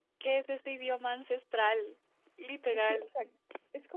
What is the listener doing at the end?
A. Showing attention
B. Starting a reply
B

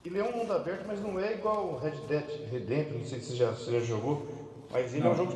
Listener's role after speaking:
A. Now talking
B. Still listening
B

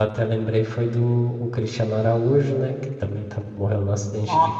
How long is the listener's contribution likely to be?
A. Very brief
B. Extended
A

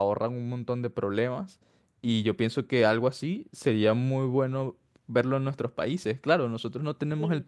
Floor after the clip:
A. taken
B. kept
B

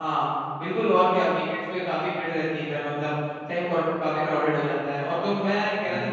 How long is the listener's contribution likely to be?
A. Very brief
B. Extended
A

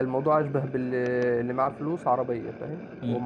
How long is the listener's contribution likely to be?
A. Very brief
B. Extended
B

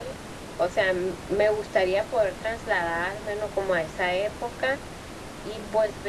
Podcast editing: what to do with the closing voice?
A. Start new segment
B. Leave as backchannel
B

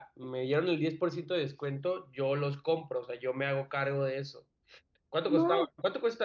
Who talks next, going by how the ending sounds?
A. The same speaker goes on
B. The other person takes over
A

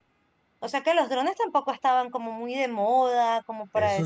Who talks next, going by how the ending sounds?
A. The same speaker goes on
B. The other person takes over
B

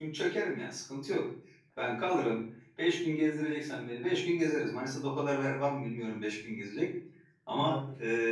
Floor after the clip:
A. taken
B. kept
B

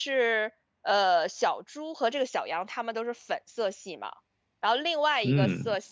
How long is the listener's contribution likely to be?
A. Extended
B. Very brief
B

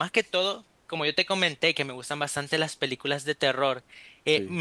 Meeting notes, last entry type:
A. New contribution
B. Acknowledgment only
B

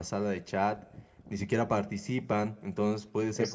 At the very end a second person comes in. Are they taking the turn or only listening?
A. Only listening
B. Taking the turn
A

